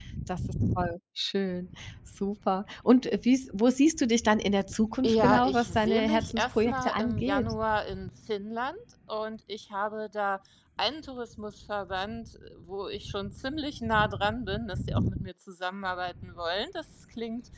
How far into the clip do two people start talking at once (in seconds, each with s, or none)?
5.0 s